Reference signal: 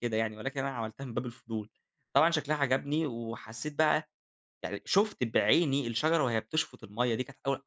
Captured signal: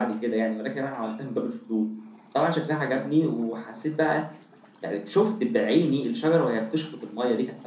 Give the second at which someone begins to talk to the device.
none

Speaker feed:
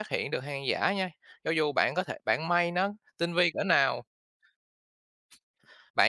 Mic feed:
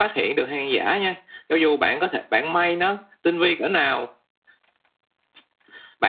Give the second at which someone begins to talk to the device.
none

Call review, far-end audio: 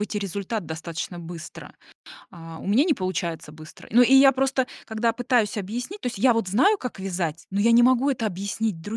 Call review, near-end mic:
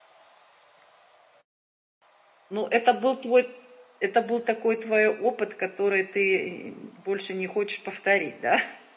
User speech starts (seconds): 2.5 s

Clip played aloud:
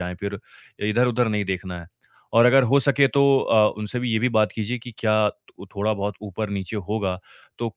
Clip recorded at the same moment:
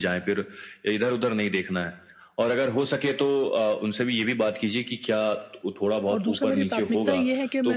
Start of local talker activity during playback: 6.1 s

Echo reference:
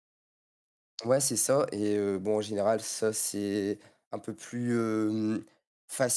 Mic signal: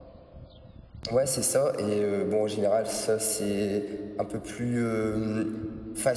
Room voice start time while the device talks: none

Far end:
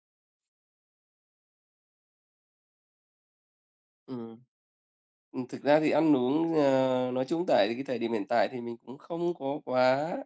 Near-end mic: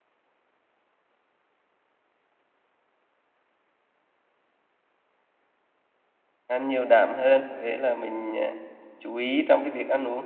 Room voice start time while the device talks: 6.5 s

